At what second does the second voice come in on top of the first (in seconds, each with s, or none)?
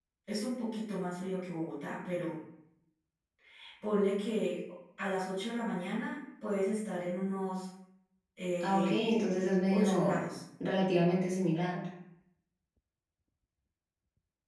8.6 s